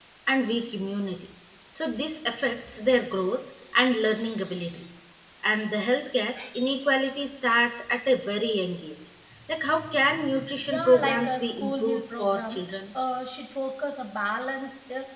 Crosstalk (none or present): present